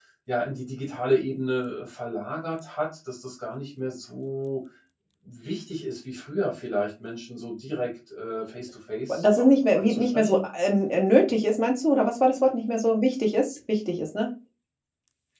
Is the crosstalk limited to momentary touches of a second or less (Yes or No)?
No